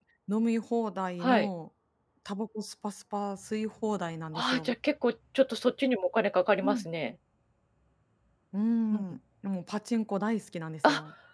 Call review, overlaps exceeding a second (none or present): none